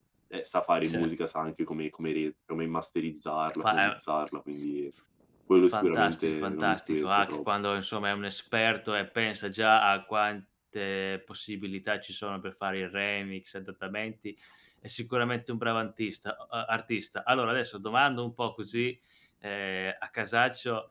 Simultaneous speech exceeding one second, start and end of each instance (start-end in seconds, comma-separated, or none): 5.7-7.4